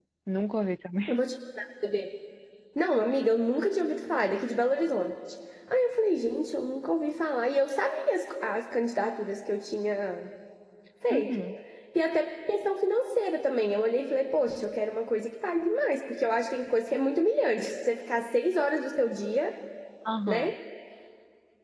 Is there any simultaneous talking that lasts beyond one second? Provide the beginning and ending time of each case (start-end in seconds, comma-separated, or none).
none